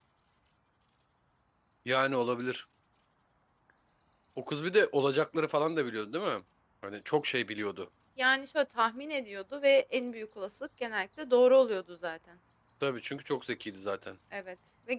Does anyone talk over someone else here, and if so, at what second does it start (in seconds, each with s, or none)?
none